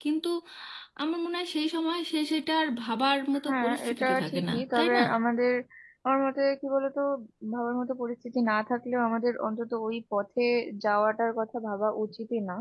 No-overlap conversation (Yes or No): No